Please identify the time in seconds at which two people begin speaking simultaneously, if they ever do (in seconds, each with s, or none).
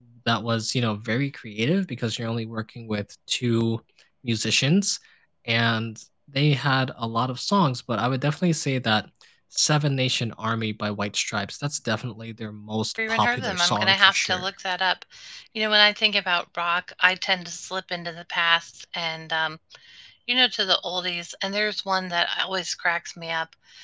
13.0 s